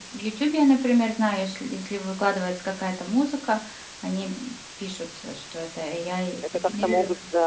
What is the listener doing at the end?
taking over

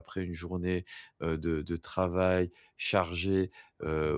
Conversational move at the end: listening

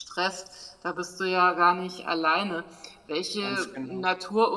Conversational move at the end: listening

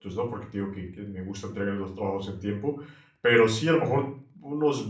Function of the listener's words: listening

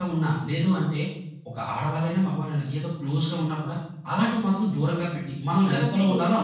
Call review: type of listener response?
taking over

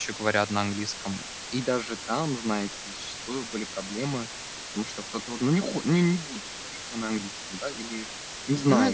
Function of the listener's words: taking over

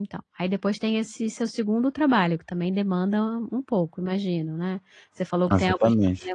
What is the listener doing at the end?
listening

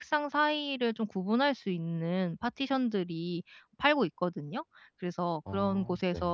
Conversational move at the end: listening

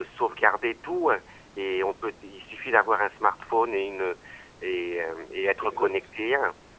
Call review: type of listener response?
listening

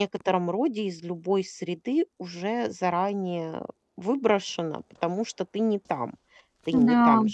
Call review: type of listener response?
listening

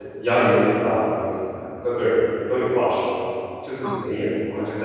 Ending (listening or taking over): listening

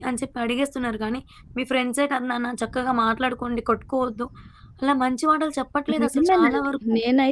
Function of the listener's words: taking over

